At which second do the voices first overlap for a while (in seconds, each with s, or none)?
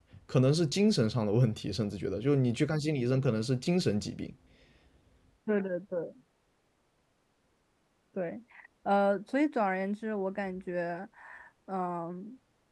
none